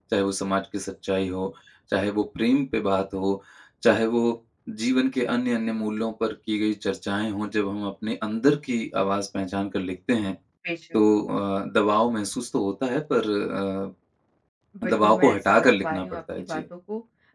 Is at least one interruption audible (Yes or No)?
Yes